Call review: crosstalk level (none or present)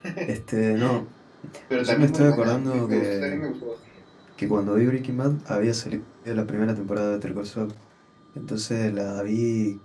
present